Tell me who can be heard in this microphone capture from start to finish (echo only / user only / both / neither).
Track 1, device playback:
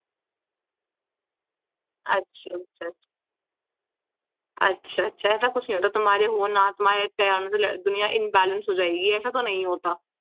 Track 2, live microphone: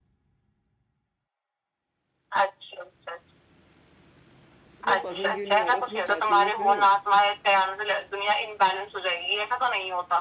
both